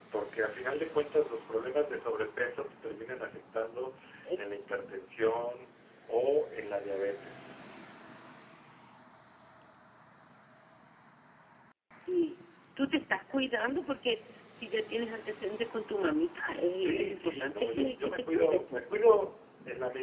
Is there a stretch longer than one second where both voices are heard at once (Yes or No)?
Yes